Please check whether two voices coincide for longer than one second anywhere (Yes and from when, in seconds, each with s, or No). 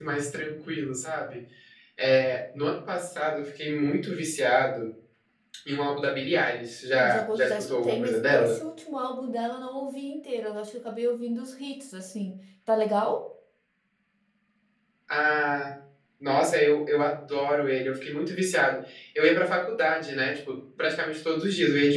Yes, from 6.9 s